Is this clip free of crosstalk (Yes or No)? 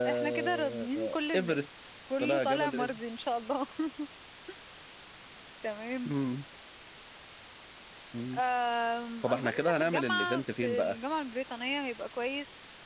No